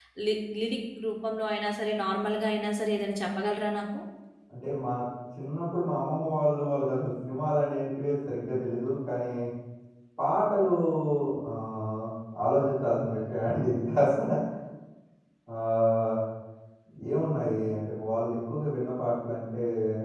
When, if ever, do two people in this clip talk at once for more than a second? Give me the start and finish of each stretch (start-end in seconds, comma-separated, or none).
none